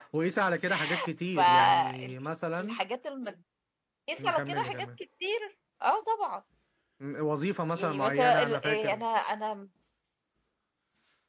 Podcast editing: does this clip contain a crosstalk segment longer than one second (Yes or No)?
Yes